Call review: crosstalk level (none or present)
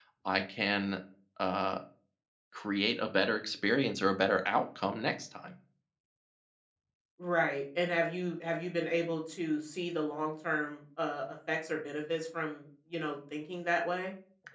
none